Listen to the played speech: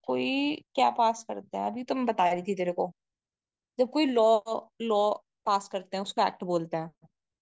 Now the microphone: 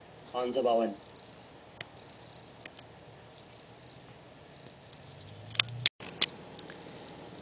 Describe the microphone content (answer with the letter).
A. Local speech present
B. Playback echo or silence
A